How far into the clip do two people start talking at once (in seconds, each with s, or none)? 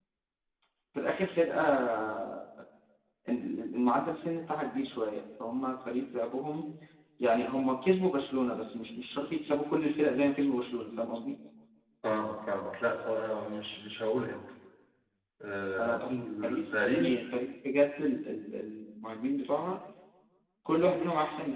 15.8 s